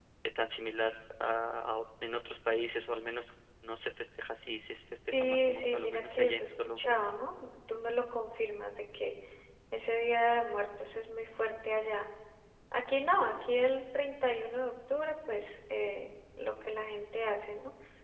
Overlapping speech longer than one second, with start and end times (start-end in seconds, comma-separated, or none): 5.1-7.0